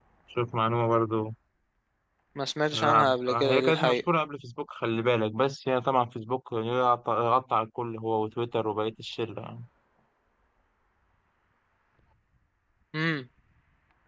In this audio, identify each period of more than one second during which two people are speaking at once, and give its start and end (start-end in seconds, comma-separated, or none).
2.7-4.0